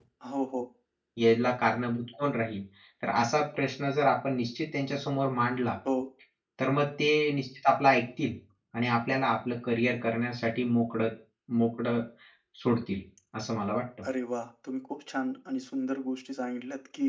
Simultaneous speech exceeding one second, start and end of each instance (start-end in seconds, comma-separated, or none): none